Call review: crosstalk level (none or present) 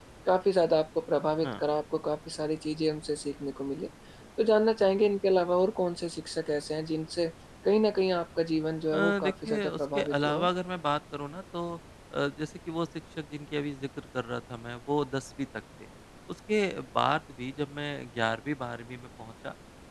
present